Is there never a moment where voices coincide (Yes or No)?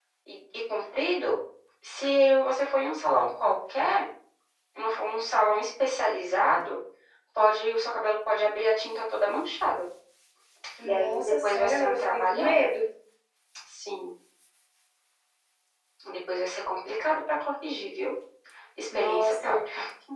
No